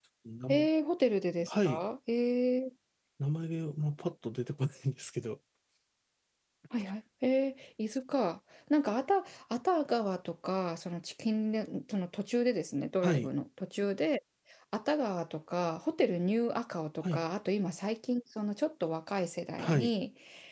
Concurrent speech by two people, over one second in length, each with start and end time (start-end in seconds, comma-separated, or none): none